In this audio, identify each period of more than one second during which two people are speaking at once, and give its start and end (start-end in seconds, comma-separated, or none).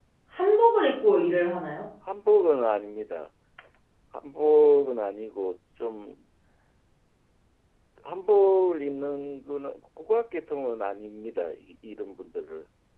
none